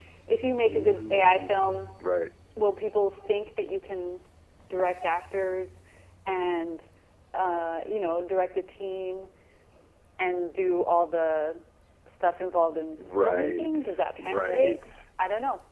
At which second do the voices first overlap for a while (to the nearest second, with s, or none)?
1 s